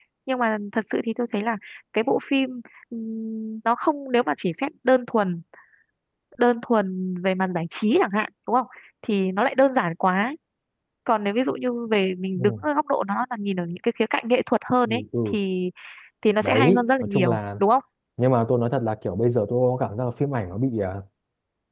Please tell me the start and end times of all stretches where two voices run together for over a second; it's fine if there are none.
16.4-17.6

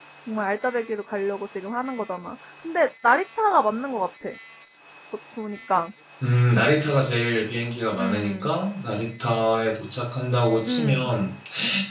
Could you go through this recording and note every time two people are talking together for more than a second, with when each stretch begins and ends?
none

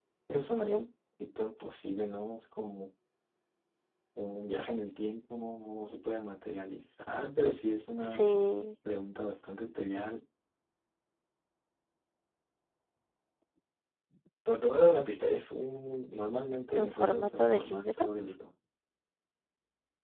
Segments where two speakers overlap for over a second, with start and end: 16.7-18.0

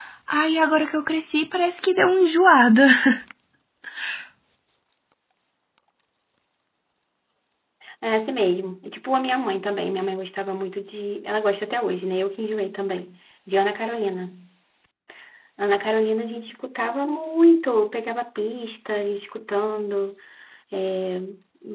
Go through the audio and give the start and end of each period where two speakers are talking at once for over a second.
none

